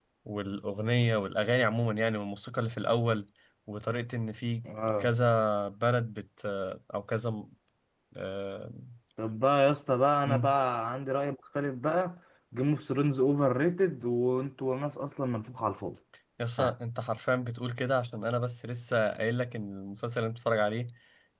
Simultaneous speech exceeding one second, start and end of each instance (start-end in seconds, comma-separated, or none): none